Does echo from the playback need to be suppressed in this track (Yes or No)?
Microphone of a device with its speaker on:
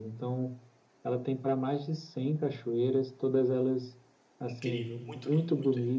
Yes